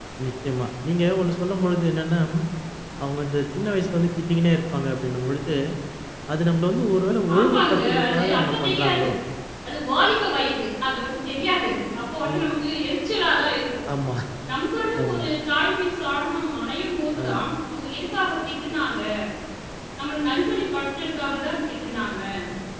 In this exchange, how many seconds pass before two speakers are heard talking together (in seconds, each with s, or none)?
7.4 s